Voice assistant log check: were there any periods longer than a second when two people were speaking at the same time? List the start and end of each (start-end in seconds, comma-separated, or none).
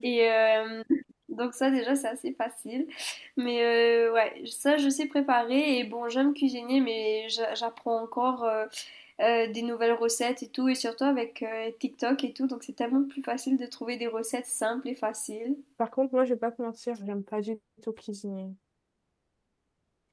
none